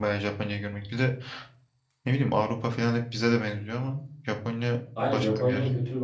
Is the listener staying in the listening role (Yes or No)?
No